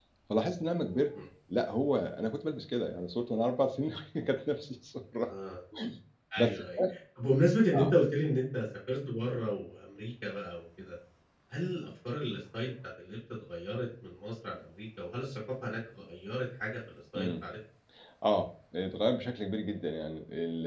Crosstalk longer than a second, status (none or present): none